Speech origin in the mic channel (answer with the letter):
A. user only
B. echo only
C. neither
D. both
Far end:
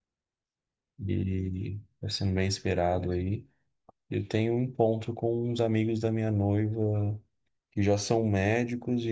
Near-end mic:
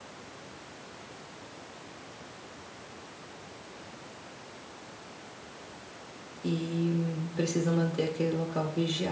A